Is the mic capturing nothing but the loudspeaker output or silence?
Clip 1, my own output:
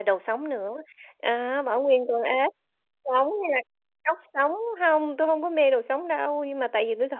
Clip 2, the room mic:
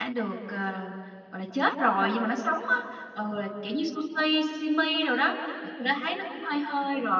No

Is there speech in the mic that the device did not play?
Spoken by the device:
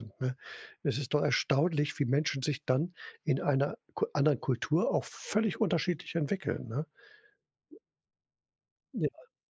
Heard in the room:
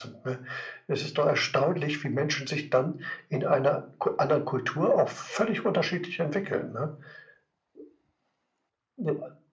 No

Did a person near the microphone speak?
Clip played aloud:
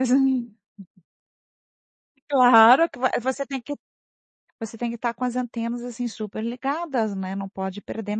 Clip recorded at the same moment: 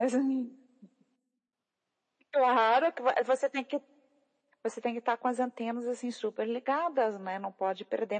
No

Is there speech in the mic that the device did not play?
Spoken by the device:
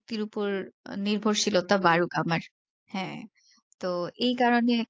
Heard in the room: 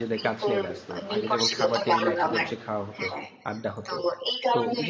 Yes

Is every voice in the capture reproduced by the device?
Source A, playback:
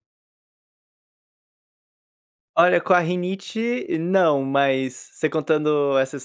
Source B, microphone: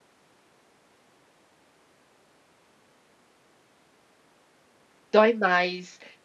No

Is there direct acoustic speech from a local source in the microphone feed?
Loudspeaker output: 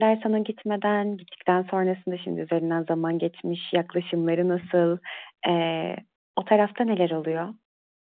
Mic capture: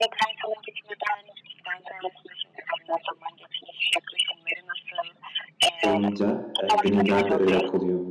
Yes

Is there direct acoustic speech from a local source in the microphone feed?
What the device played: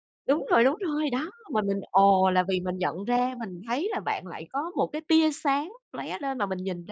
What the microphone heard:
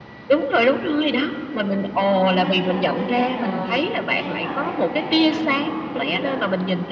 Yes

